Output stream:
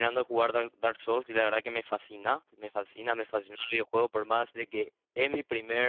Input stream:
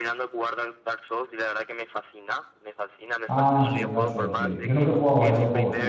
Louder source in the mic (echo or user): user